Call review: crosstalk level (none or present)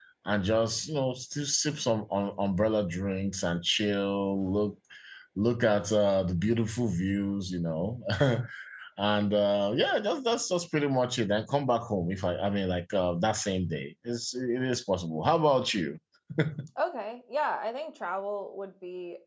none